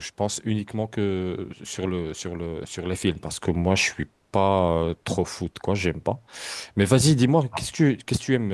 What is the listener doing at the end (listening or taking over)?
listening